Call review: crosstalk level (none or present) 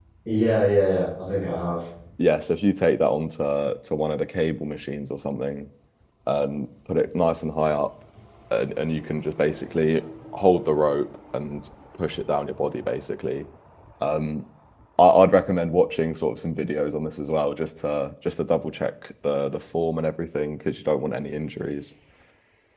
none